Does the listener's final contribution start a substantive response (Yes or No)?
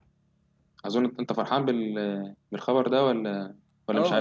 Yes